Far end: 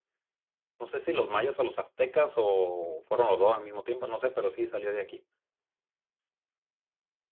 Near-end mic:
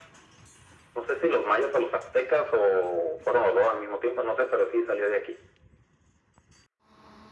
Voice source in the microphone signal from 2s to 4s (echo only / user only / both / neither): echo only